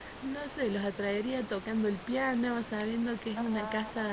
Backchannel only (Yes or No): Yes